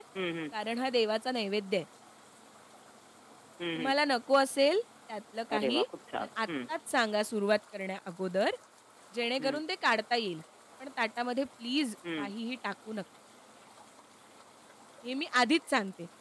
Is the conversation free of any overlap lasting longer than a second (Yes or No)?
Yes